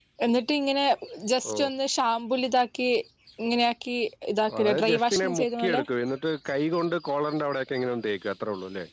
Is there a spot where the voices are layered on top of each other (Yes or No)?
Yes